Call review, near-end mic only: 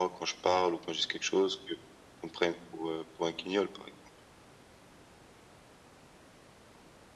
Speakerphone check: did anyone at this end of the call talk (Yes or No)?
No